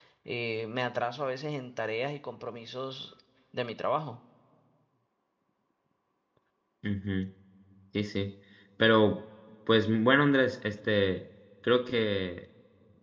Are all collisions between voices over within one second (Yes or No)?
Yes